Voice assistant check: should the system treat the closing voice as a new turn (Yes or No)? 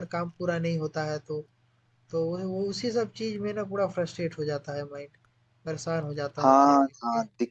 Yes